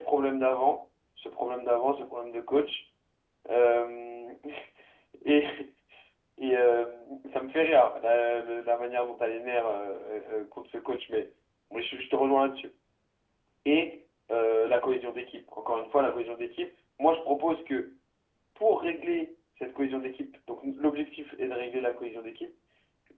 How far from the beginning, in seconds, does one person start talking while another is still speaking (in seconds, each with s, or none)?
none